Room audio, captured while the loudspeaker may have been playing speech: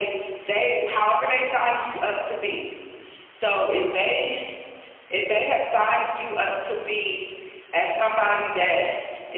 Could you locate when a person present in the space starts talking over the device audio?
none

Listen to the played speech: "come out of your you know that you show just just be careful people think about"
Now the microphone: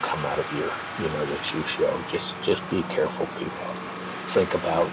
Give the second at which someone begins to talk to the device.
none

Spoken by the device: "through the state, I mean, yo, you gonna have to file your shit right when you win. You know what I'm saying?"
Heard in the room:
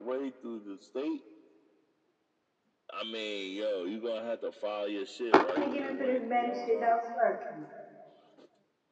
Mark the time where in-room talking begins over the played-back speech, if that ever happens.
5.4 s

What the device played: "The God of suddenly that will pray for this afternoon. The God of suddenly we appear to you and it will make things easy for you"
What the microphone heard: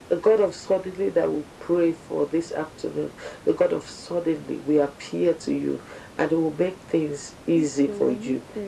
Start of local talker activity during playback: 7.5 s

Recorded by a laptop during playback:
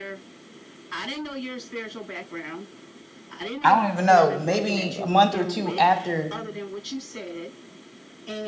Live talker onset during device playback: 3.6 s

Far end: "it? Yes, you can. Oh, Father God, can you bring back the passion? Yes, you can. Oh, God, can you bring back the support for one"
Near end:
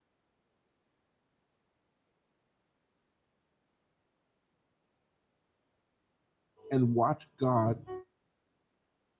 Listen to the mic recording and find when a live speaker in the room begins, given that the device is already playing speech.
6.7 s

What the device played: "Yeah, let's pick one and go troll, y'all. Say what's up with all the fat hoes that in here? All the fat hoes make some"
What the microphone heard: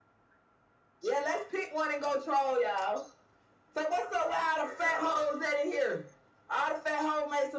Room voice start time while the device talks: none

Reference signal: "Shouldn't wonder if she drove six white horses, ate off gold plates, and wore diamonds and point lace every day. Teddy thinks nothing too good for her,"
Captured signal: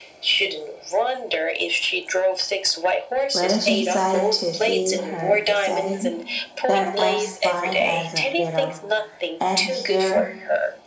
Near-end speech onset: 3.3 s

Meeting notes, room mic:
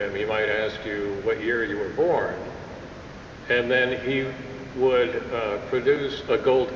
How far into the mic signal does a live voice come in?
none

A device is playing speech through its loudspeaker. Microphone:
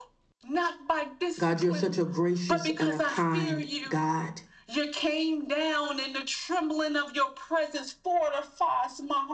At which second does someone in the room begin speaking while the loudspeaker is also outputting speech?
1.4 s

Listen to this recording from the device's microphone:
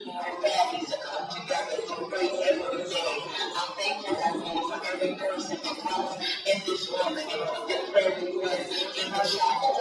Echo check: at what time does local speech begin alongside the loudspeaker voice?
none

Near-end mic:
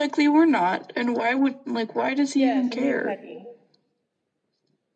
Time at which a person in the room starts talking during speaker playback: 2.3 s

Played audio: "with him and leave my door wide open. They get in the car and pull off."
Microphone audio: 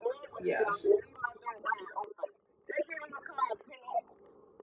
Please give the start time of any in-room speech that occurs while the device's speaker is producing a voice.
0.4 s

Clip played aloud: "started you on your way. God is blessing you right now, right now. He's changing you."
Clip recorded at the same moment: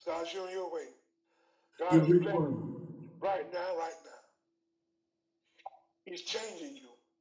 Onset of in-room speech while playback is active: 1.9 s

